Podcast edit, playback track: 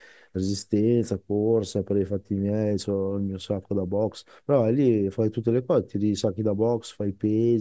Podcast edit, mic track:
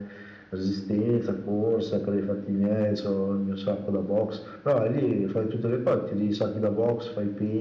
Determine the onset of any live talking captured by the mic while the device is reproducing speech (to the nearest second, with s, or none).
none